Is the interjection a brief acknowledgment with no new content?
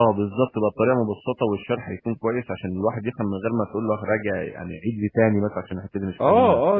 No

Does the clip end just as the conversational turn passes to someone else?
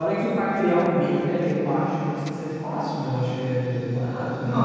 Yes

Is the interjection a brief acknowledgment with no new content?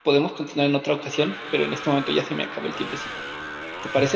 No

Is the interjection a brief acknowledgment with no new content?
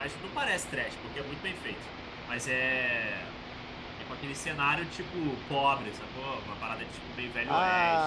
No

